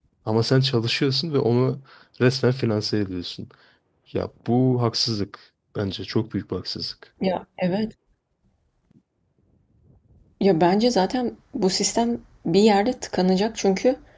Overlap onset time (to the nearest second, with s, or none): none